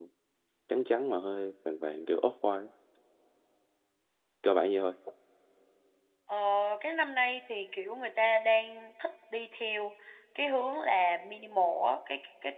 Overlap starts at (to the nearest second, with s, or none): none